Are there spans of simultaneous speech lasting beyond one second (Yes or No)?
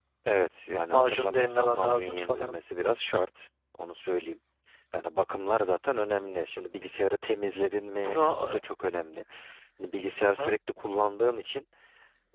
Yes